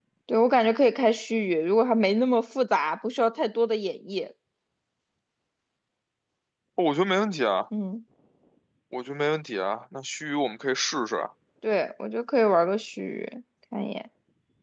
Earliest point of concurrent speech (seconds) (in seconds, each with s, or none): none